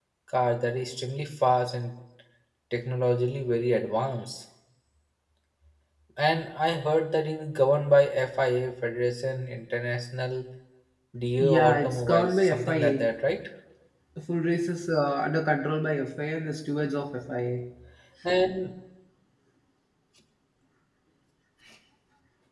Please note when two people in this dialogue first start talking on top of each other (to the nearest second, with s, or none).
11 s